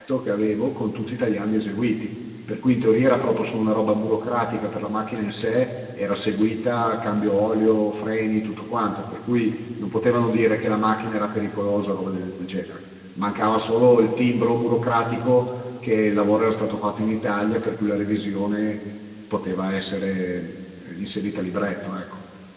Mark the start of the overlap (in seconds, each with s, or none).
none